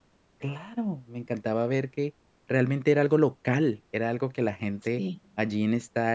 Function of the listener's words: listening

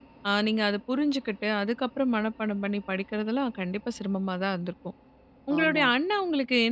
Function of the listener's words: listening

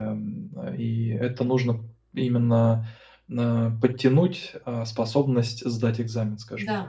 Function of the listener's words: taking over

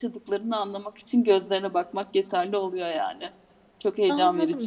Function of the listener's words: taking over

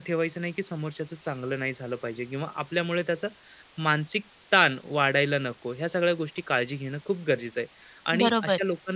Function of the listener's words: listening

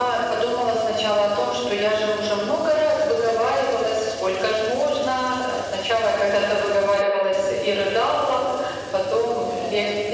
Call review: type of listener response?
listening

